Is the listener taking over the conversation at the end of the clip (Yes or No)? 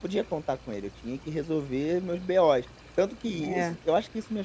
No